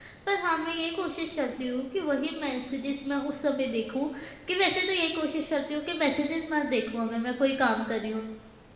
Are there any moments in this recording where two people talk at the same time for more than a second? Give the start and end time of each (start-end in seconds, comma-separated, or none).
none